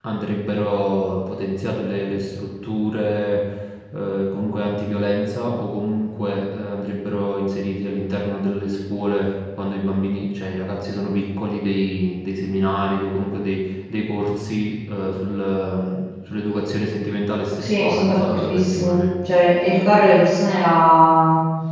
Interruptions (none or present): present